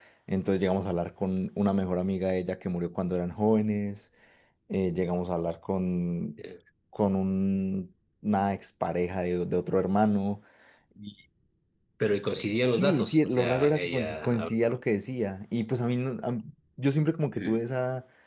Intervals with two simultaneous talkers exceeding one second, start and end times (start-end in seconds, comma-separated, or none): 12.7-14.8